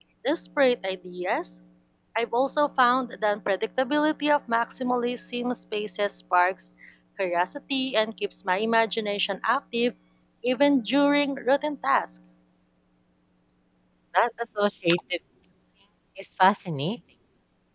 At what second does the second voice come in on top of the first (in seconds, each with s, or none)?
none